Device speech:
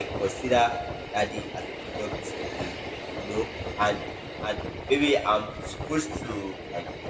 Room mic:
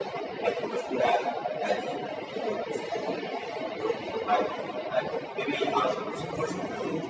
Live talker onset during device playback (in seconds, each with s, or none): 5.6 s